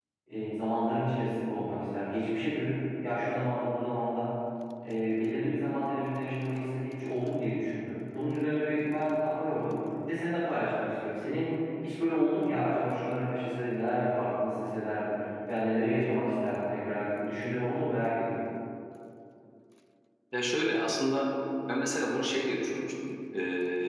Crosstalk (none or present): none